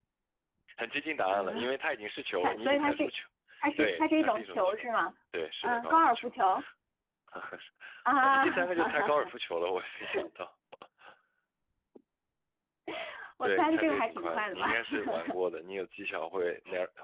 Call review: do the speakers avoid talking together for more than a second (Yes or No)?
No